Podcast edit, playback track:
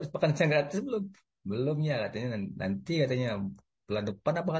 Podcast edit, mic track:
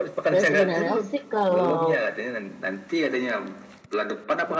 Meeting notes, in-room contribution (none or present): present